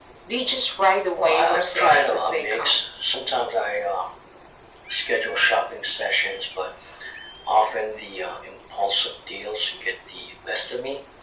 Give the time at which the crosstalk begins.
1 s

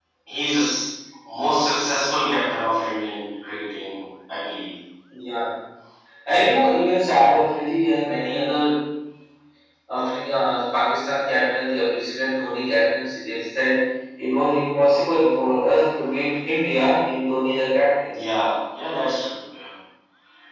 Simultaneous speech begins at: none

